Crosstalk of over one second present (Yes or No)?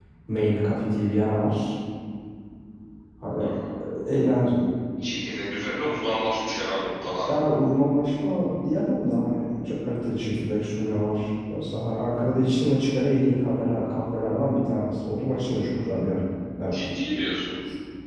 No